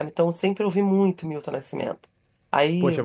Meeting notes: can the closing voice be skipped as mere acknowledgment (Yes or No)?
No